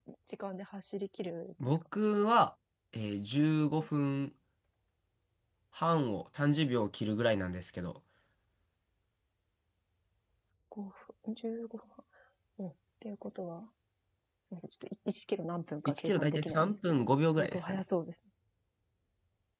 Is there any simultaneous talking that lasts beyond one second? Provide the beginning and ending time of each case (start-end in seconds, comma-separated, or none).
15.9-17.8